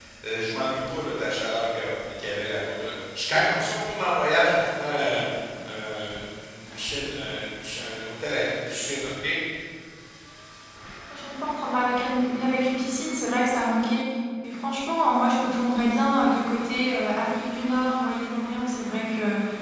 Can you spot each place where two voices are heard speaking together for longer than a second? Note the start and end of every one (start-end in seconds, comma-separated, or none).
none